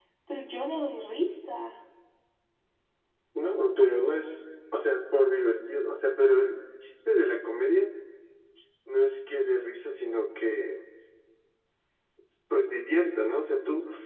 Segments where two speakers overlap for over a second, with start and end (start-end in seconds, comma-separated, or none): none